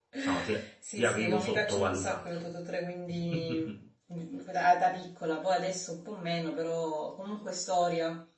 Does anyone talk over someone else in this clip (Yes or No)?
Yes